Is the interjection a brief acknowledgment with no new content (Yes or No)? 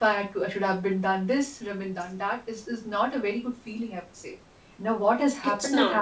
Yes